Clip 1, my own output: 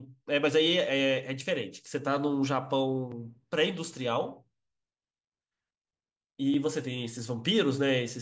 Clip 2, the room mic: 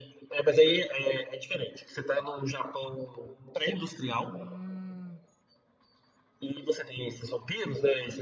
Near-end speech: present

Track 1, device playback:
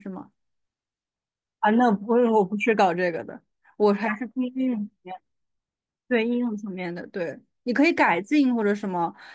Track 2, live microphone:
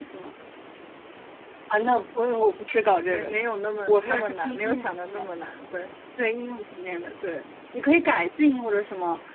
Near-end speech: present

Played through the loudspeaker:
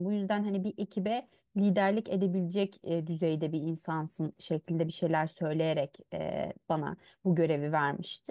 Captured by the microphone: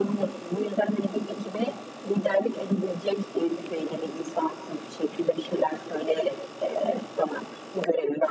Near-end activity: none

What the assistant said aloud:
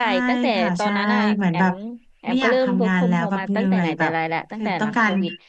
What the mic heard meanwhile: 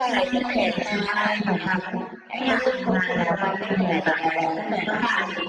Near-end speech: none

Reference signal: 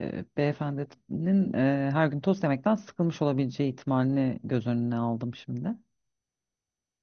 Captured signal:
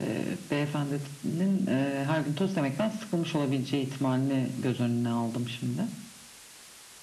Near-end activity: none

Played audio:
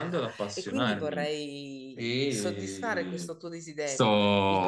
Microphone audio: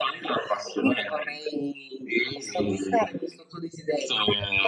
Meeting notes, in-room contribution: none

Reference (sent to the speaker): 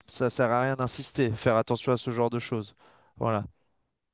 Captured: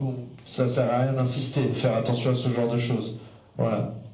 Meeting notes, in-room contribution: none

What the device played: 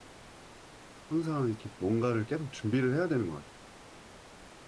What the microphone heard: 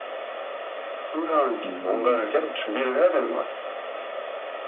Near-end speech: present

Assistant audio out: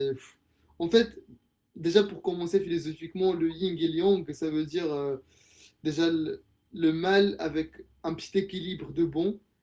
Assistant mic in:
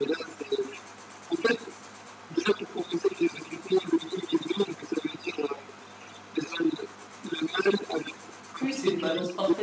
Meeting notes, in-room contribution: present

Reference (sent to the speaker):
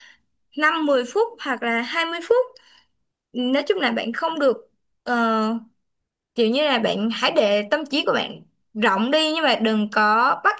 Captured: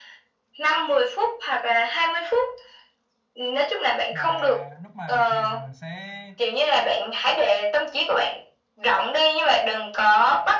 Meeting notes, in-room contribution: present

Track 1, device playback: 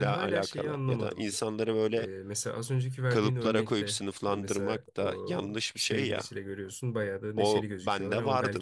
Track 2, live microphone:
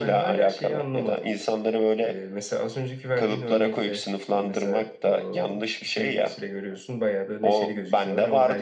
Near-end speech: none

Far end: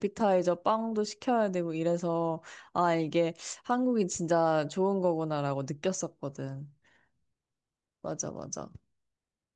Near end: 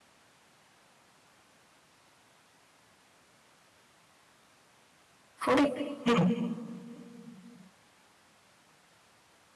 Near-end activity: present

